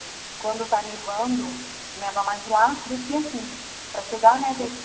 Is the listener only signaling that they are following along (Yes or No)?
Yes